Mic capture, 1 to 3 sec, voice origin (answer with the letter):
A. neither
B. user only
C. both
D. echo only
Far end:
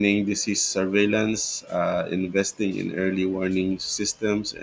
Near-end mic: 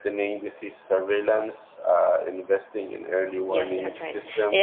D